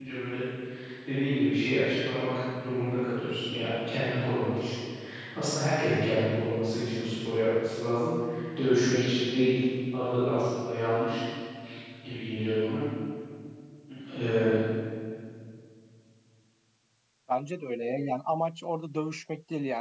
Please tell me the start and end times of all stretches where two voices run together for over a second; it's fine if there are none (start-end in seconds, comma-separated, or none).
none